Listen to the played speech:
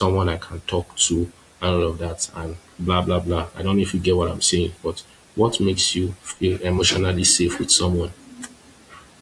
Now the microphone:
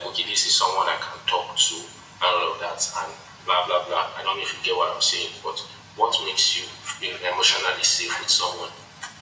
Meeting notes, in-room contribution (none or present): none